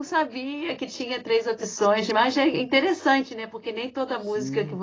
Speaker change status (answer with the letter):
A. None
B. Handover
A